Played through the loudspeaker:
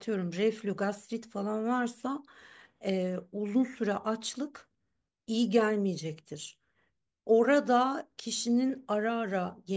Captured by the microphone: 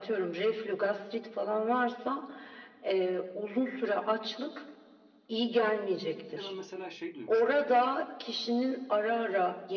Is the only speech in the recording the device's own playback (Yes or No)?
No